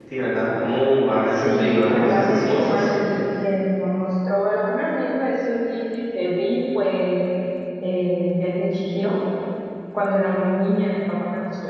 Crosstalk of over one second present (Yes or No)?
Yes